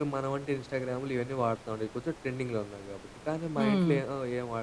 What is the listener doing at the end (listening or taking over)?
listening